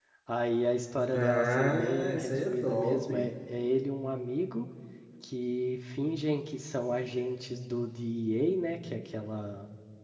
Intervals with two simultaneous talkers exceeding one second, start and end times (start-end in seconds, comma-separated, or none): 1.1-3.3